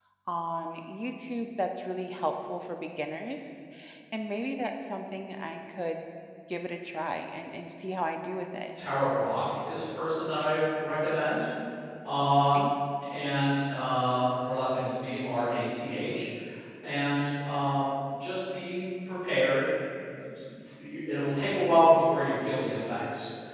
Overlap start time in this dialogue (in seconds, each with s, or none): none